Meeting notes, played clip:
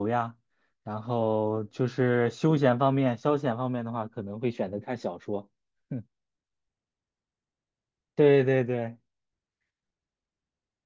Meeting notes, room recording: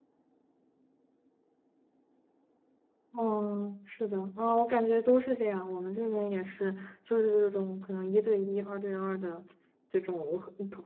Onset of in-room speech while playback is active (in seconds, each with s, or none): 3.2 s